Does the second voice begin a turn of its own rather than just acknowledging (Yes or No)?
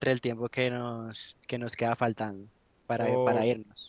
Yes